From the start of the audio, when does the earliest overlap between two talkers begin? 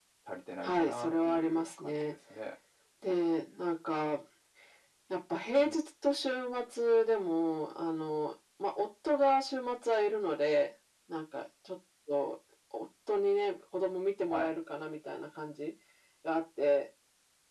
1 s

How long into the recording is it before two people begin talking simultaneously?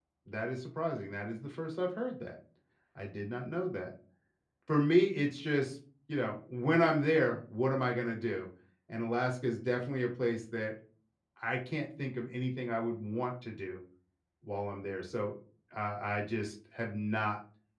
none

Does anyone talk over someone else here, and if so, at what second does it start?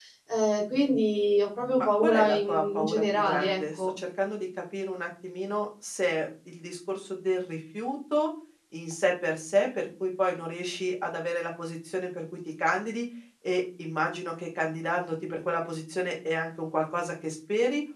2 s

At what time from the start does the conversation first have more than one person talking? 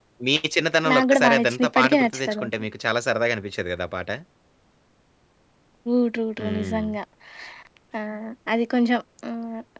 1 s

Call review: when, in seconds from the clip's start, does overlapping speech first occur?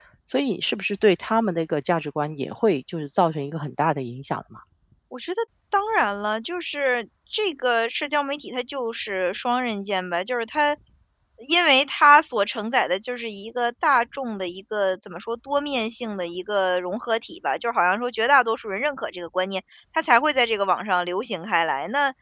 none

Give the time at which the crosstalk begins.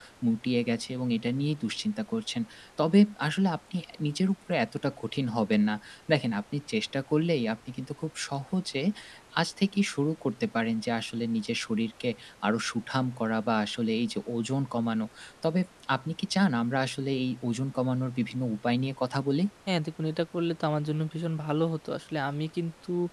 none

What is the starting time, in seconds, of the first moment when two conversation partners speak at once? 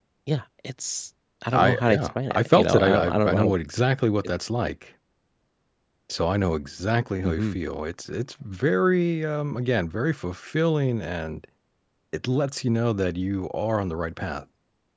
2 s

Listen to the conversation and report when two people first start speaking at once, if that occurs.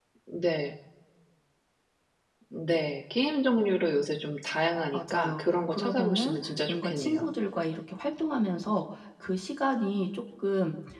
5 s

